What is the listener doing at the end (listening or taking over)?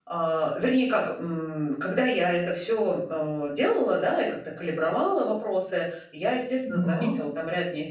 listening